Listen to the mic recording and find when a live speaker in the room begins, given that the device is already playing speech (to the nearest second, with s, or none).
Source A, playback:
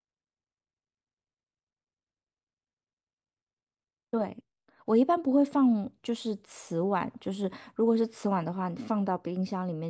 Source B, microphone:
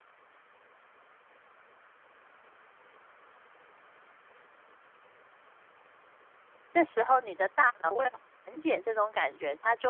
7 s